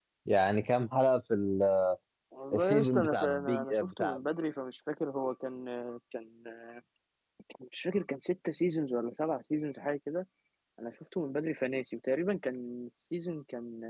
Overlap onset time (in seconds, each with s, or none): 2.5 s